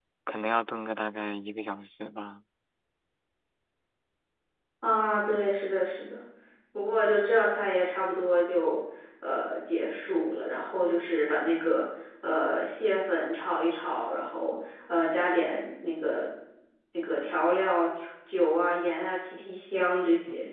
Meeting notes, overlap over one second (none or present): none